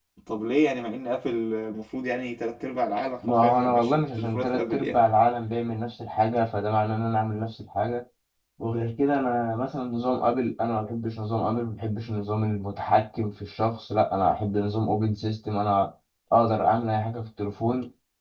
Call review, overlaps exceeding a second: present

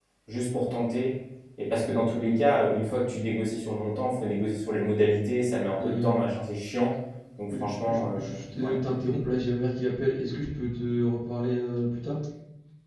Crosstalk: present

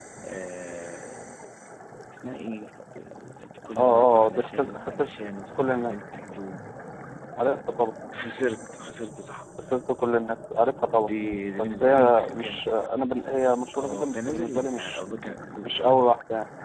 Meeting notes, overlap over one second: present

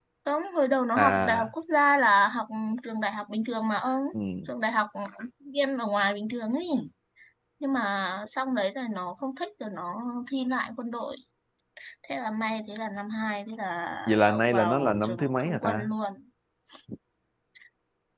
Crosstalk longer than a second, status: present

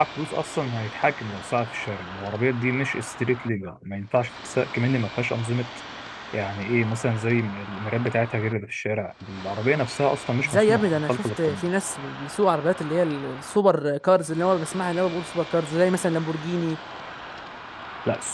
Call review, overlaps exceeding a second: present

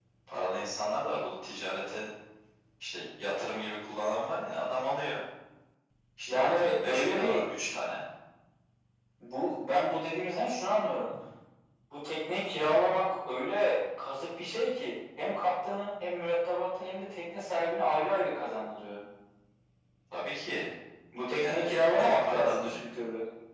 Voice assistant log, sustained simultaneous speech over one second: present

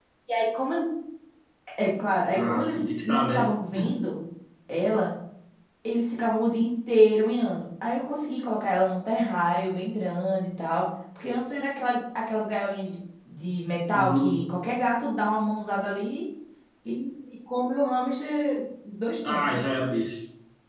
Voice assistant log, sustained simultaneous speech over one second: present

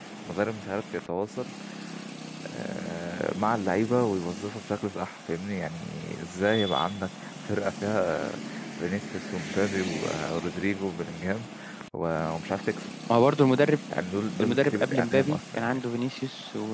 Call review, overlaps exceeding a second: present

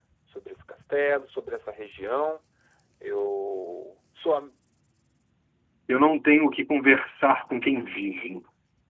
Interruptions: none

